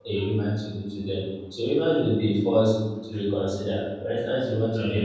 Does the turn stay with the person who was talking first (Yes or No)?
Yes